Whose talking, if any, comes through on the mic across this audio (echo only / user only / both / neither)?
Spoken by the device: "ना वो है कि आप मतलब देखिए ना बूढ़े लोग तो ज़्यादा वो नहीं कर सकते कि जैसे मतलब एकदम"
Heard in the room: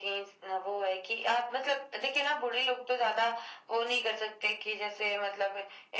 echo only